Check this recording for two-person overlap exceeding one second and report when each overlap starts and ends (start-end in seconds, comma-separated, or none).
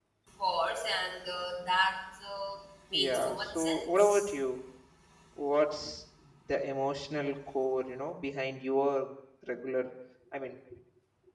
2.9-4.3